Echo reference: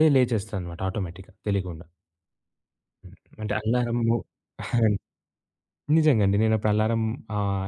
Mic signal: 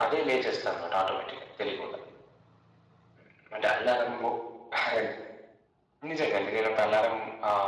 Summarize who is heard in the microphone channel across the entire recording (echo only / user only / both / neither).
echo only